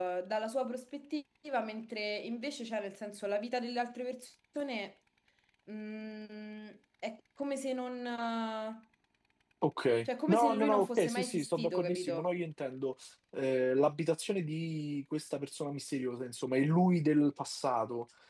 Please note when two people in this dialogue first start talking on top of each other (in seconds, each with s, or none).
10.1 s